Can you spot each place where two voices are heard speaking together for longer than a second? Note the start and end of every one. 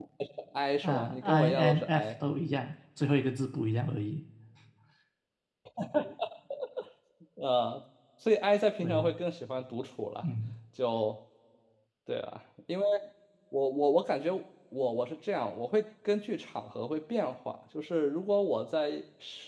0.8-2.1

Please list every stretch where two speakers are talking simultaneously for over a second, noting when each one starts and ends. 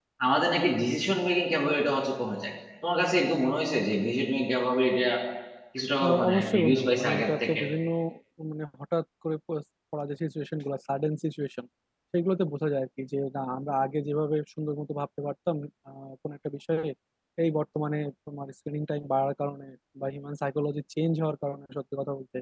6.0-7.6

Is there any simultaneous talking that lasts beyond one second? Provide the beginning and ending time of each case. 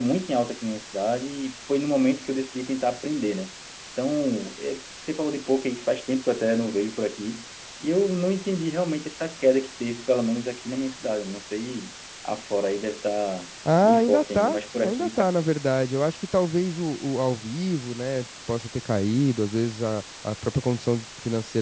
13.8-15.3

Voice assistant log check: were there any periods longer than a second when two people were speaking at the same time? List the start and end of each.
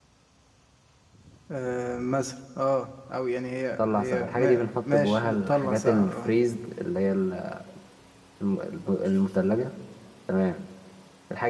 3.8-6.4

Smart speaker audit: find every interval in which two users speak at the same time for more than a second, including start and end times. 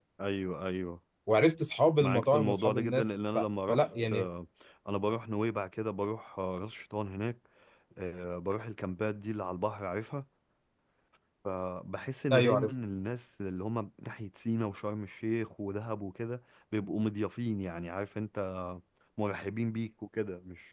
2.0-4.3

